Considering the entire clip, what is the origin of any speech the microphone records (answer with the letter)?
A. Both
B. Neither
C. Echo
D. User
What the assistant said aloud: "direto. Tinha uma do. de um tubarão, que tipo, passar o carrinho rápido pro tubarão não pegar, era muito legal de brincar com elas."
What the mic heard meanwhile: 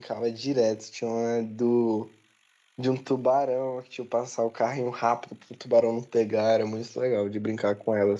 C